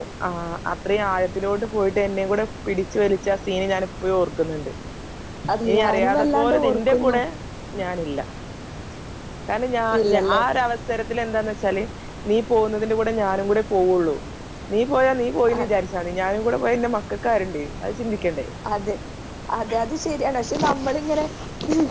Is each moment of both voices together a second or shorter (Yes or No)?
No